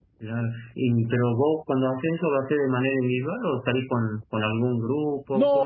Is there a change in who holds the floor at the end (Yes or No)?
Yes